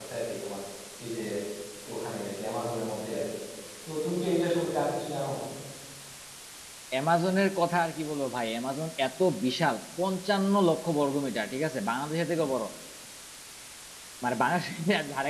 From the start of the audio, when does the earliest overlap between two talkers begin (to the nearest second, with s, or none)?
none